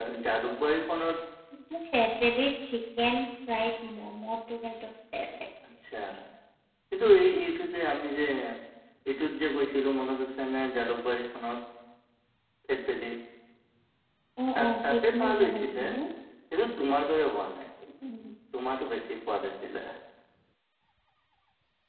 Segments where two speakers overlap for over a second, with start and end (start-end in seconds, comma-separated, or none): 14.6-15.8